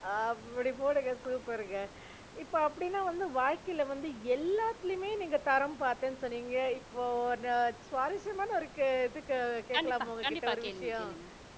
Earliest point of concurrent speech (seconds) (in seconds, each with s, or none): 9.7 s